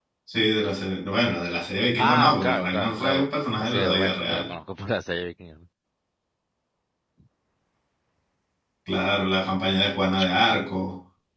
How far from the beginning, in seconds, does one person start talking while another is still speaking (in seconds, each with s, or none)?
2.0 s